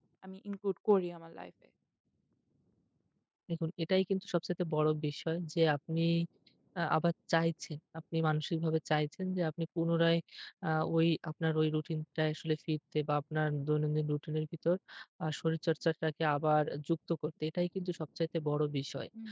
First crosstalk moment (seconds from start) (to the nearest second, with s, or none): none